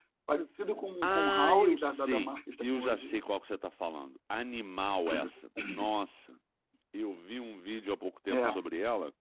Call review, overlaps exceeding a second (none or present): present